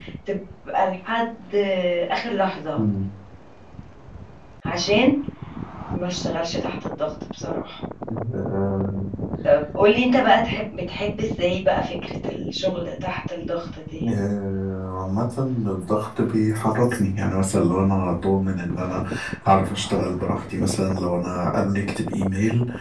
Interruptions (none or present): none